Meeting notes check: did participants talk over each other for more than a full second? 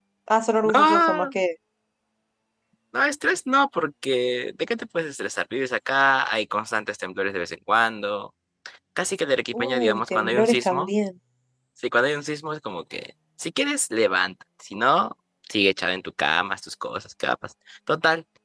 Yes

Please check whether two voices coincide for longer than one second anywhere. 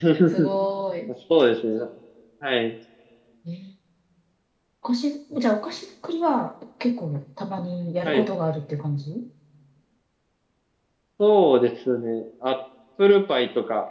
No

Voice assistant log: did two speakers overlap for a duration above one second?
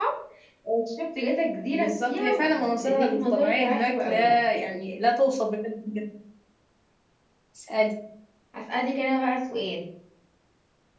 Yes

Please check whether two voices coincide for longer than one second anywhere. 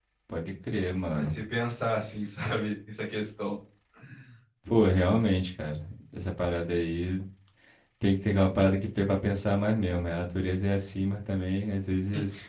No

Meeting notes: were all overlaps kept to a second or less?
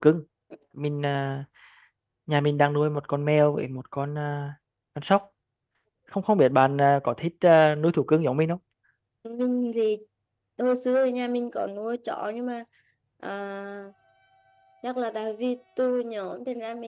Yes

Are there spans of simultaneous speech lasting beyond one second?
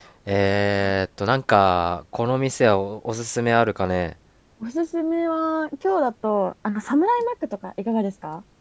No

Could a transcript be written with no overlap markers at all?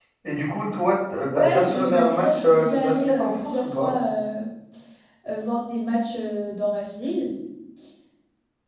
No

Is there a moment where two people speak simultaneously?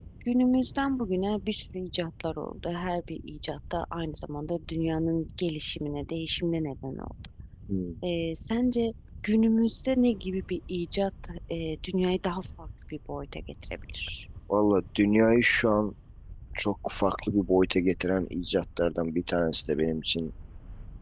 No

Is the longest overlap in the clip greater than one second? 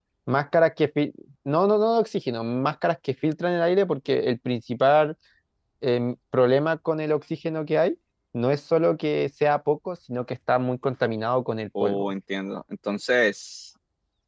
No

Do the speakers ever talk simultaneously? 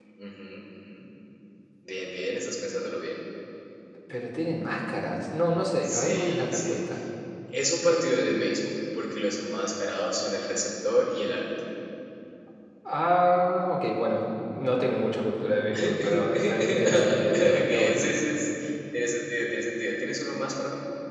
Yes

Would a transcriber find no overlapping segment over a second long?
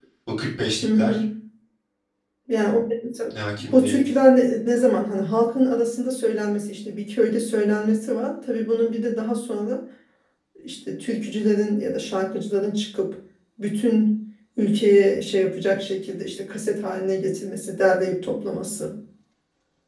Yes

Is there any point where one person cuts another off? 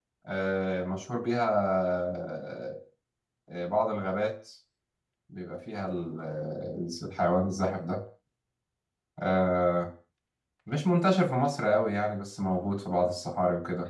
No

